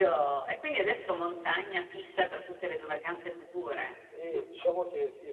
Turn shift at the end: Yes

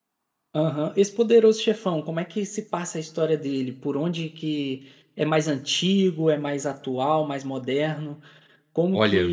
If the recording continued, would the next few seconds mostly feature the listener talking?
No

